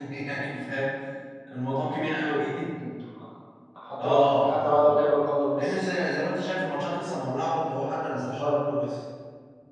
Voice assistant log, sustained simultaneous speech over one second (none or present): present